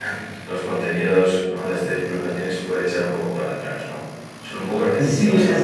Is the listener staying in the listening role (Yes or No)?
No